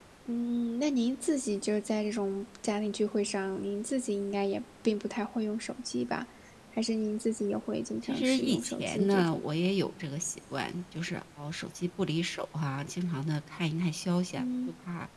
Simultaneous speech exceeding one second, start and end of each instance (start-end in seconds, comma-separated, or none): 8.0-9.4